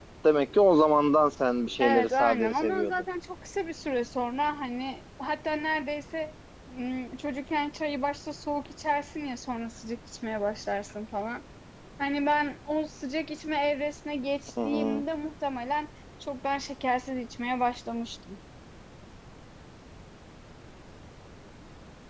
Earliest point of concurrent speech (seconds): 1.8 s

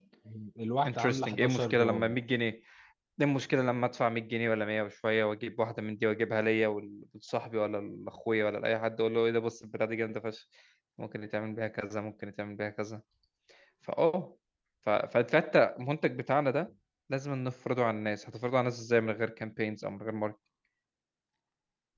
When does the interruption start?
0.8 s

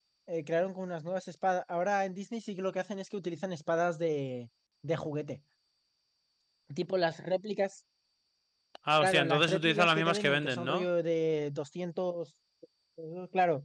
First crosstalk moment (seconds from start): 9.0 s

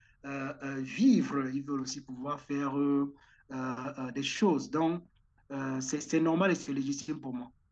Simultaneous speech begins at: none

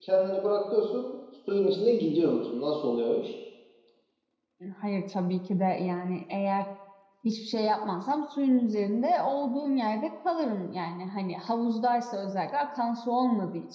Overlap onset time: none

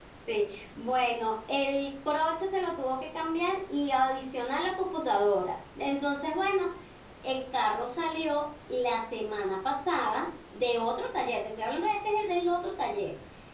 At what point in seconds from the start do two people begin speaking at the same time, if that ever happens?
none

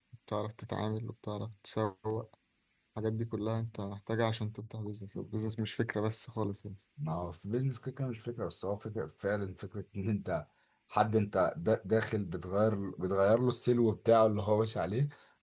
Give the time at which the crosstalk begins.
none

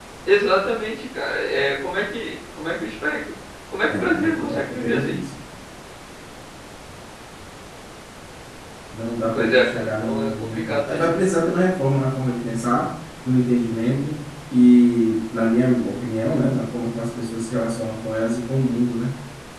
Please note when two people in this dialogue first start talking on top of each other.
3.9 s

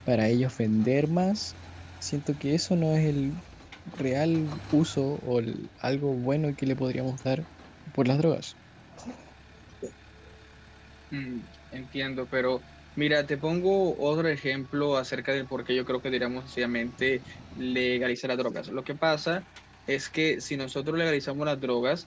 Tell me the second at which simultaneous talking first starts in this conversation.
none

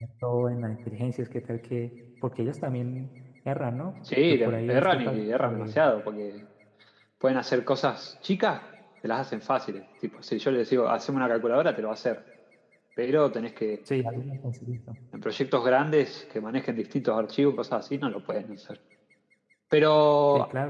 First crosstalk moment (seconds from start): 4.3 s

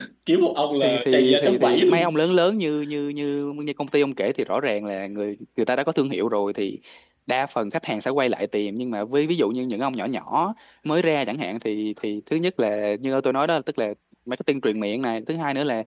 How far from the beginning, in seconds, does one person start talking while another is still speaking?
0.8 s

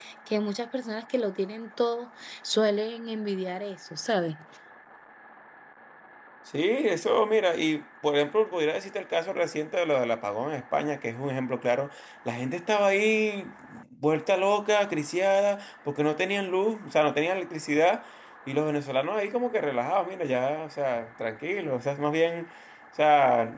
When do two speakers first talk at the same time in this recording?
none

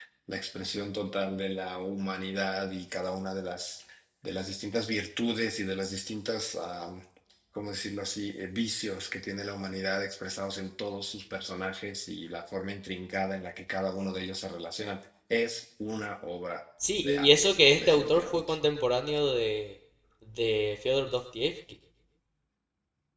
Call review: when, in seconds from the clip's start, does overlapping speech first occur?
17.0 s

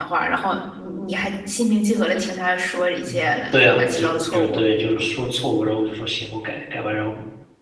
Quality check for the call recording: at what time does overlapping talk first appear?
3.1 s

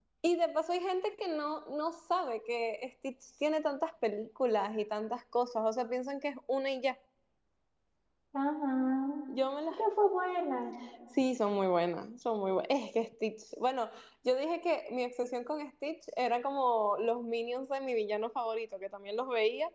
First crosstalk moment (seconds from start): none

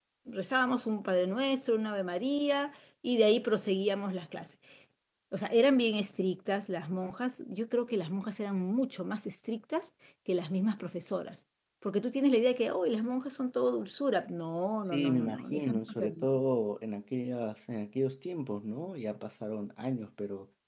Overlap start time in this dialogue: 14.9 s

